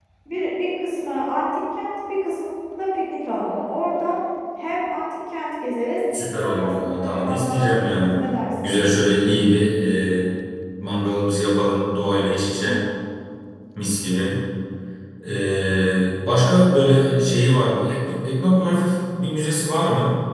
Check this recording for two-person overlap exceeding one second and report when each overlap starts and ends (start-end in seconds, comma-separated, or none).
6.4-8.1